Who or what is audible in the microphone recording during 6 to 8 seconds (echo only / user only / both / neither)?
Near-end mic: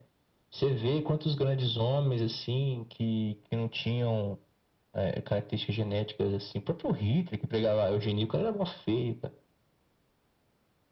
echo only